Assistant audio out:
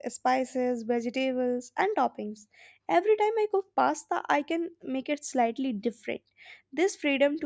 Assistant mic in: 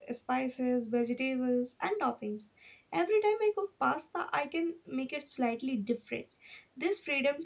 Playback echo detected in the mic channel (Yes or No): Yes